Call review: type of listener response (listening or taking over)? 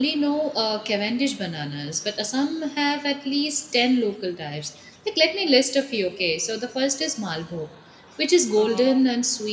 listening